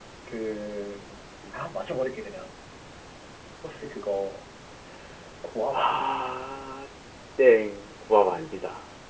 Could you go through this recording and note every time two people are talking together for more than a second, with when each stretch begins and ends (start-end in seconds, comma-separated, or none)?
none